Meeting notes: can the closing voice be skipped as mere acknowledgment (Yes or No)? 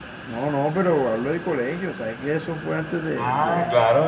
No